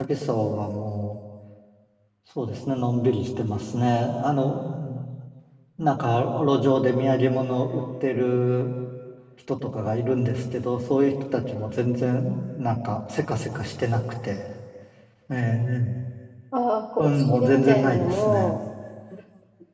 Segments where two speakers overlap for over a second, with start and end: 17.0-18.6

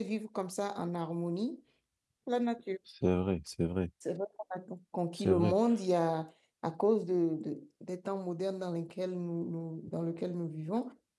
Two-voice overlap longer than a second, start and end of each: none

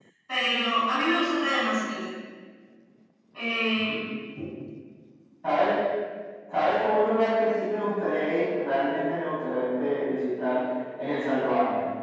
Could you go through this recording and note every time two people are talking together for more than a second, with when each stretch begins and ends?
none

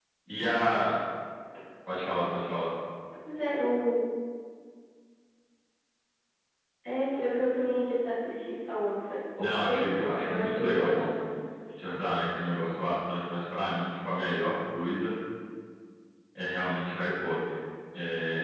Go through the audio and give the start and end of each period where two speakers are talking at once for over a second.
9.4-11.1

